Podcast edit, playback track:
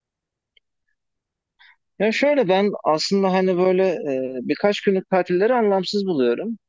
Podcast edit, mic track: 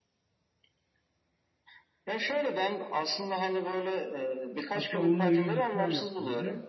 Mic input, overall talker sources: both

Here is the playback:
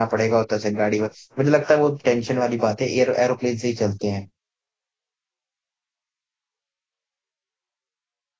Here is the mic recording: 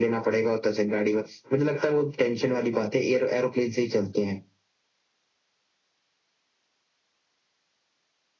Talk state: echo only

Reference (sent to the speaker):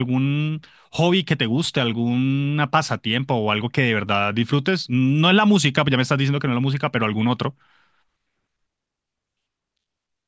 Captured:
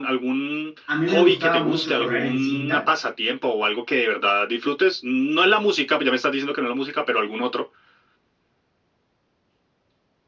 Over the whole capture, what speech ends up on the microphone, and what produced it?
both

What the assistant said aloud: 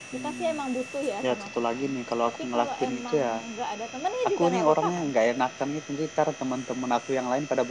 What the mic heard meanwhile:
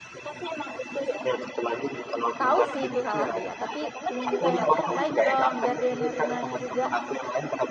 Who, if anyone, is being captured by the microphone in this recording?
both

